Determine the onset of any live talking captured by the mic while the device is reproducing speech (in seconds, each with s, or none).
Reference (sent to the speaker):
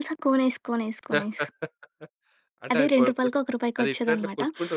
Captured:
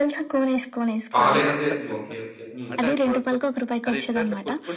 1.1 s